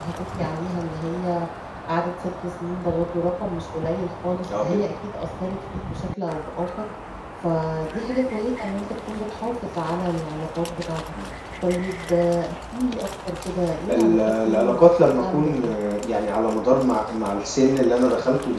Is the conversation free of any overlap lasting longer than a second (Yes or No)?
No